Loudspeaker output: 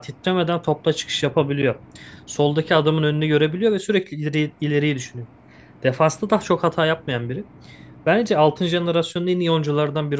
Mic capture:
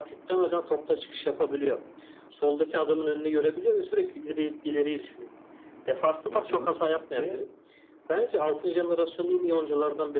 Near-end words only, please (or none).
ve genç ve